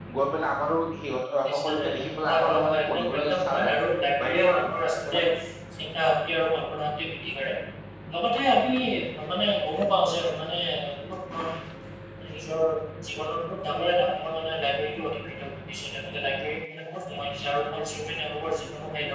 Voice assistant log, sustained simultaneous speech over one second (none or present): present